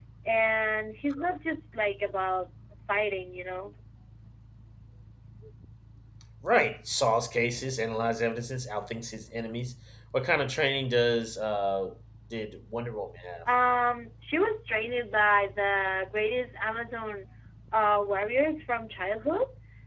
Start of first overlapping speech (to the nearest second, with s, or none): none